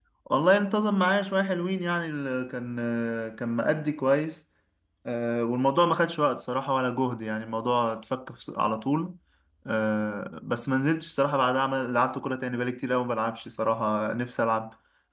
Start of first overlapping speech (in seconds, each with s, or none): none